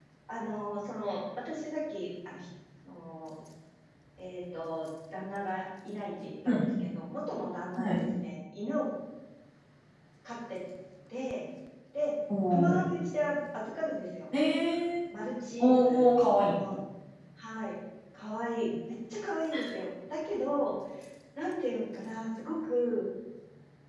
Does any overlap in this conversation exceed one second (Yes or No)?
No